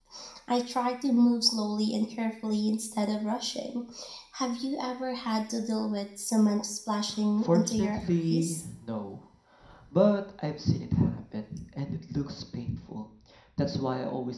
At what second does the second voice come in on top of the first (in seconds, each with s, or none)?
7.4 s